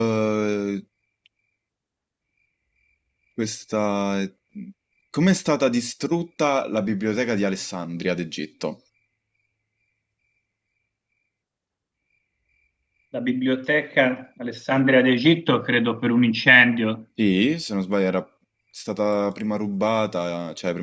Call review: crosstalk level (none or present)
none